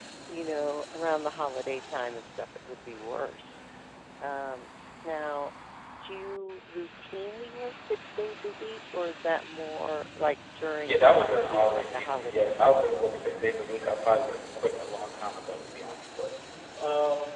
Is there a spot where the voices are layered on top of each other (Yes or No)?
Yes